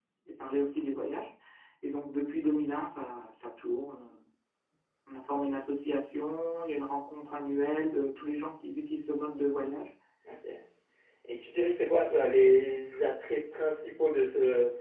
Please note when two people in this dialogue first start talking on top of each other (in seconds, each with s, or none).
none